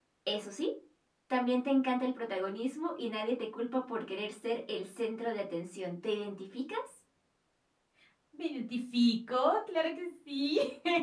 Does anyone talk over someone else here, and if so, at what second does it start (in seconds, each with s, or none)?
none